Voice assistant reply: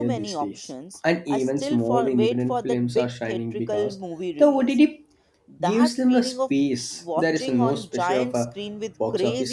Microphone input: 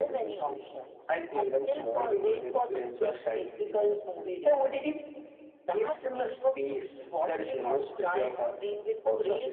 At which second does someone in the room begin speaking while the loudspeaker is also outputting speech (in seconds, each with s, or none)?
none